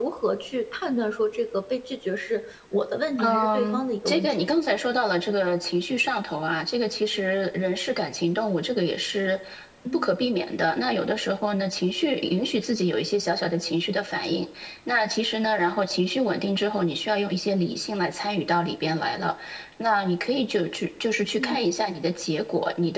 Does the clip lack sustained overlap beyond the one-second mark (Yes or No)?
No